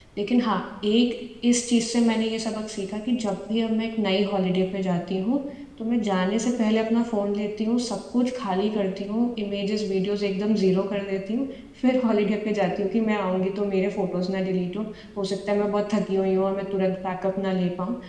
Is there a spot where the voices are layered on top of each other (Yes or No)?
No